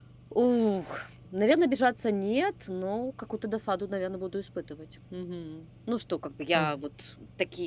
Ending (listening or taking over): listening